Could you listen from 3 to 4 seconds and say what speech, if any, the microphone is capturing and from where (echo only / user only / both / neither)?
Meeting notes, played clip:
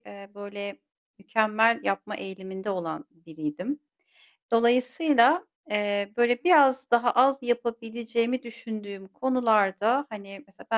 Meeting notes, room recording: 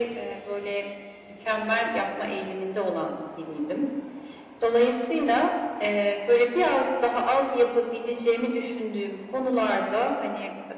echo only